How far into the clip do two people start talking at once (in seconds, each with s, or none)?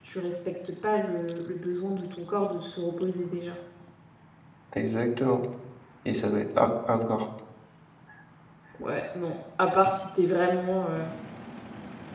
none